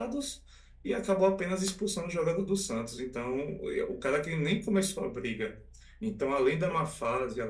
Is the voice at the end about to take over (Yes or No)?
No